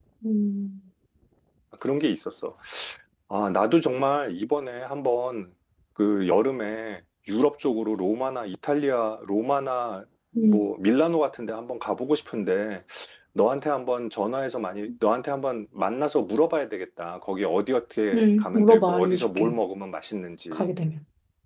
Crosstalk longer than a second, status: present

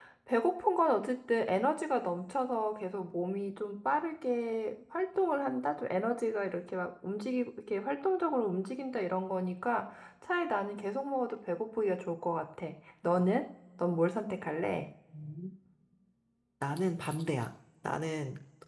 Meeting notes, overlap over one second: none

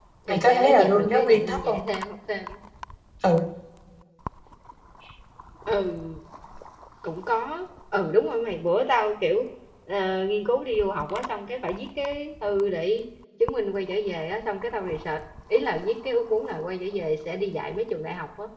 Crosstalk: present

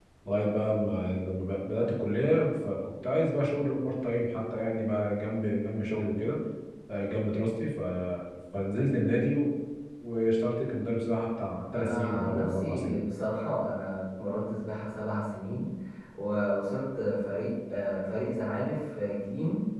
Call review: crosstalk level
present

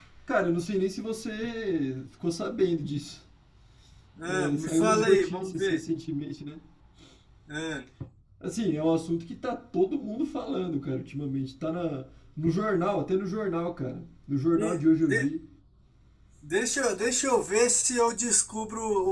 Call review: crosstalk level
present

